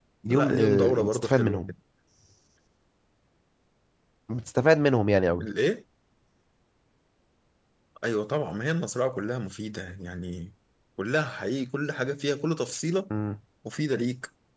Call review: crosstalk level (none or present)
present